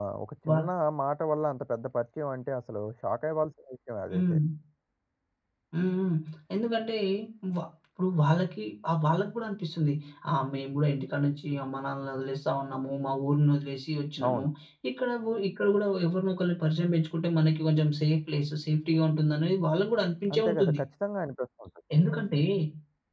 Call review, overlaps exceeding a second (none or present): none